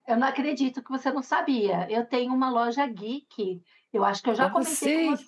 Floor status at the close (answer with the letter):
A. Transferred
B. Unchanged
B